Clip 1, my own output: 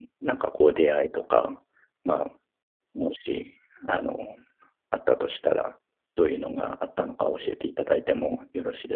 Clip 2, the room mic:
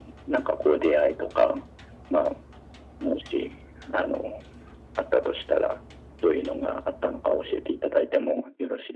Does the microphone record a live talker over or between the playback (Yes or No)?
No